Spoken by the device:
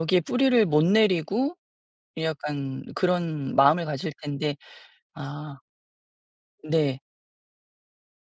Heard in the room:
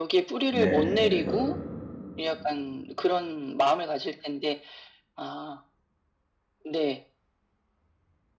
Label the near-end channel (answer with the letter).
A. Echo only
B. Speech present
B